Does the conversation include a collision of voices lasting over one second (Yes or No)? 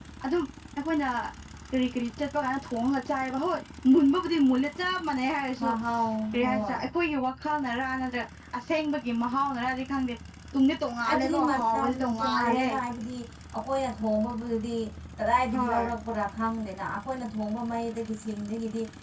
Yes